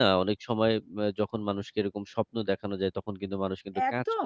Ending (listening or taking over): taking over